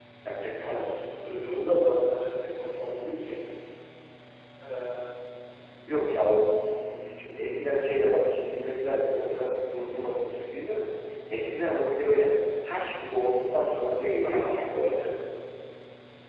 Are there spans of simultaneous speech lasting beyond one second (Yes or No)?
No